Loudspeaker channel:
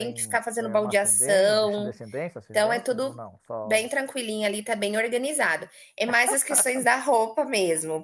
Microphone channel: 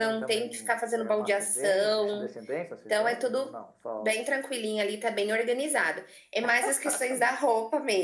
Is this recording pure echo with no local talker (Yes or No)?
Yes